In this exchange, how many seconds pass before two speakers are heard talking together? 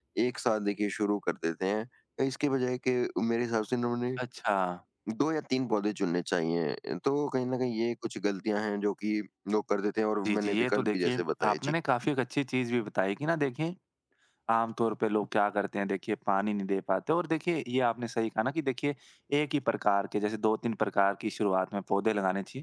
10 s

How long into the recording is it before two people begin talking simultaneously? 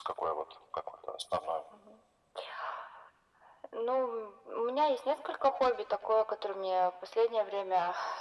none

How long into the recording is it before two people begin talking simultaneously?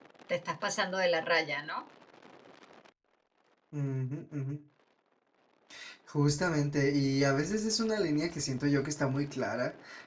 none

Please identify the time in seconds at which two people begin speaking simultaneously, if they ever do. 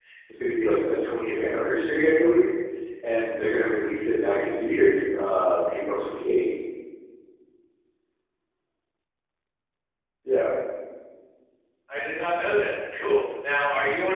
none

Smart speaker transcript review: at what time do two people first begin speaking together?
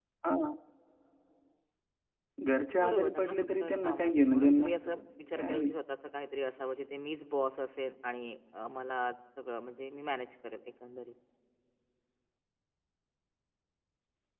3 s

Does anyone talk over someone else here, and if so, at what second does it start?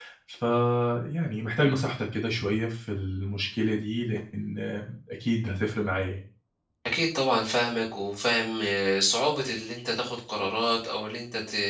none

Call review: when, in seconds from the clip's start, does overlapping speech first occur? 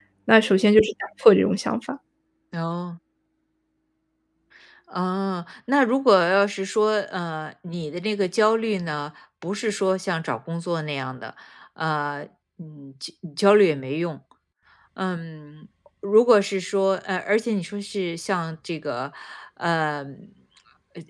none

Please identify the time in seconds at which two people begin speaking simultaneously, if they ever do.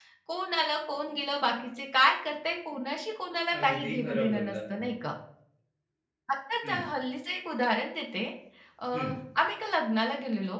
4 s

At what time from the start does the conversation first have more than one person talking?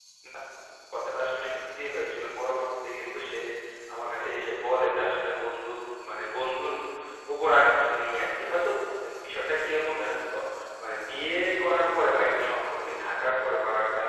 none

